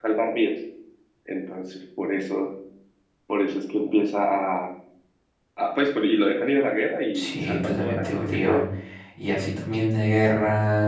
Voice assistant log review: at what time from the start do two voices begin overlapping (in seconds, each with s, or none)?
7.1 s